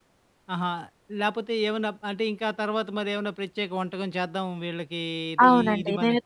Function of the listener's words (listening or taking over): taking over